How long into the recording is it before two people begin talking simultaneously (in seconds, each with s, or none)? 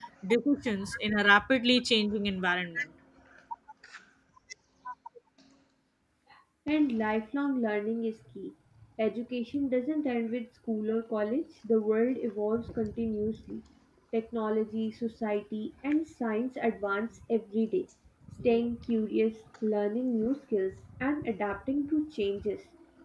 none